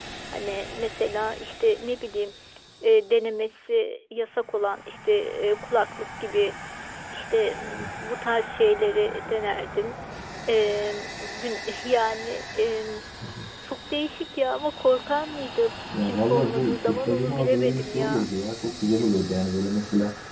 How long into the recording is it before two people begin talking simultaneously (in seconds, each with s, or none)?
15.9 s